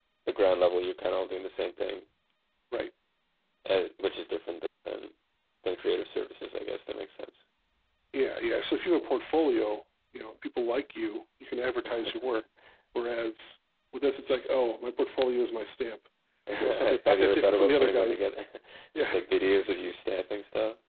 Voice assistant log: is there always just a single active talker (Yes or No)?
No